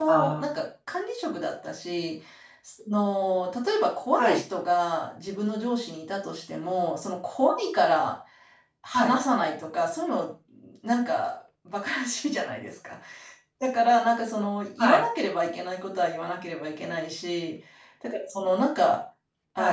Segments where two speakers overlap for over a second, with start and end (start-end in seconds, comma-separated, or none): none